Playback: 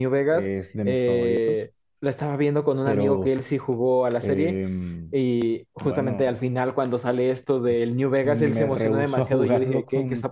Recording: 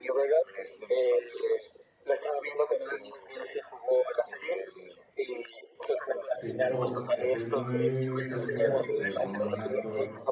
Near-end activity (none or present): present